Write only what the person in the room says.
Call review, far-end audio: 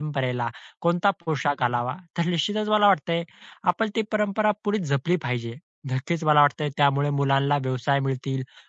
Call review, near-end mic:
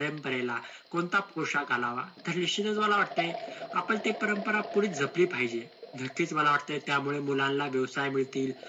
none

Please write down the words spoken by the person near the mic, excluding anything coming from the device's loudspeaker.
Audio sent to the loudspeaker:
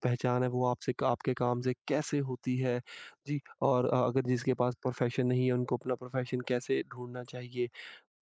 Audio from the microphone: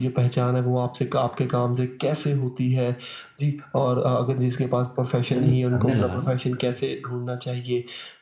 जब मैं करने लगा ना,

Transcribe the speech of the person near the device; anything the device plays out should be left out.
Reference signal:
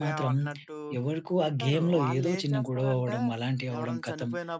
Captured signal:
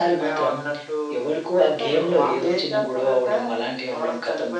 none

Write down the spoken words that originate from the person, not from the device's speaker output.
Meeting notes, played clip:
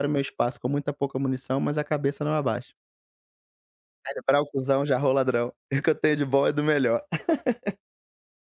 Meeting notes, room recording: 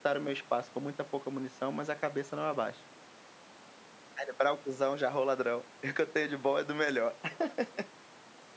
none

